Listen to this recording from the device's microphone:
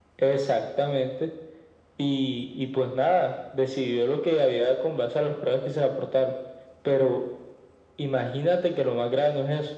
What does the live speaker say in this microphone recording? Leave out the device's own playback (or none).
none